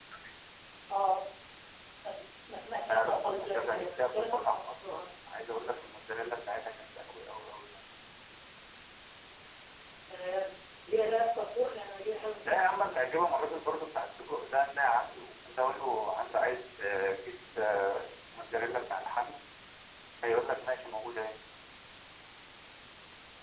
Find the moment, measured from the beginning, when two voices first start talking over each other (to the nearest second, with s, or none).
3 s